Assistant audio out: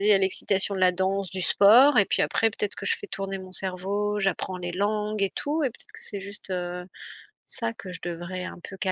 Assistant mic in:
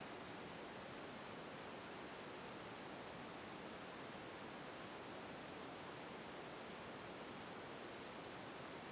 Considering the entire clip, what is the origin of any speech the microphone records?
neither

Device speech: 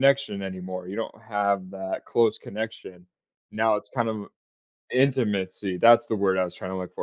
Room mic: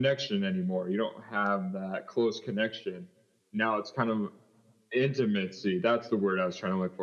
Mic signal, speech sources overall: echo only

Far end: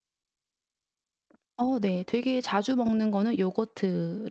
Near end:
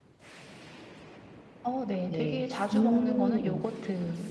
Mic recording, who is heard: both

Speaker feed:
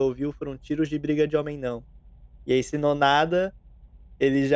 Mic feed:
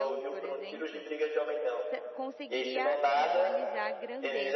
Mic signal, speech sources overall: both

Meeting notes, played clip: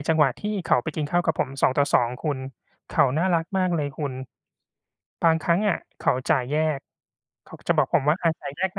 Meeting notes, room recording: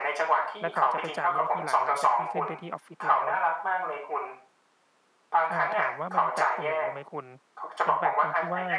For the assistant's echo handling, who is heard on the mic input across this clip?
both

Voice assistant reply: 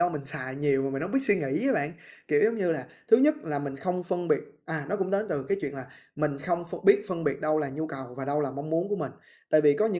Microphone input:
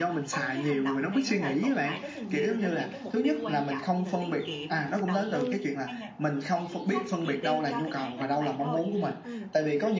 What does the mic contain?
both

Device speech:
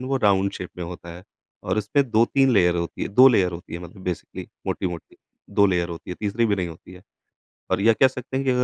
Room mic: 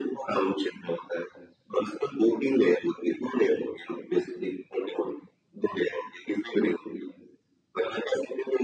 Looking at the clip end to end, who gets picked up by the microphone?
echo only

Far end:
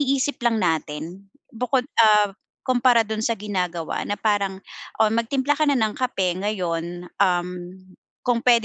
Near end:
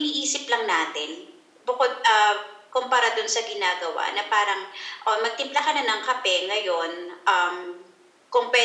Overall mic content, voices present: echo only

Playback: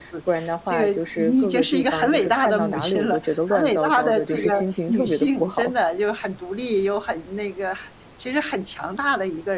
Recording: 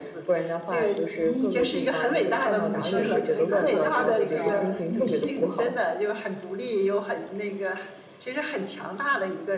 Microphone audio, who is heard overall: both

